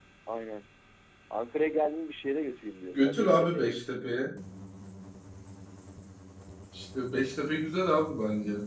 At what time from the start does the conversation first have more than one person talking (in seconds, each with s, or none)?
2.9 s